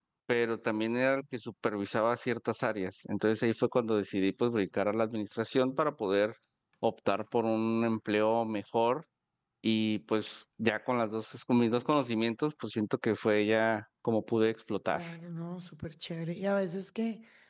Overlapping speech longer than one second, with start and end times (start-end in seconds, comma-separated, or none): none